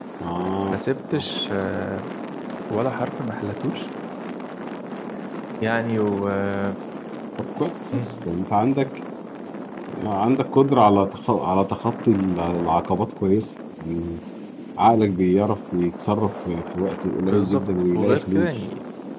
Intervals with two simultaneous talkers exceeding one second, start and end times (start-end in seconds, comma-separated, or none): 17.2-18.5